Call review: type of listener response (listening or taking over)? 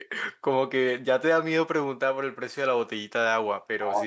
taking over